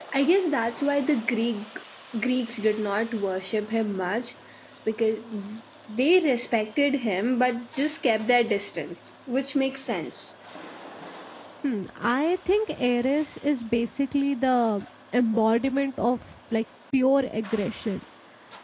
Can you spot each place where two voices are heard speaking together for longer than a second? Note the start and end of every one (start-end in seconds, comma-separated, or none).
none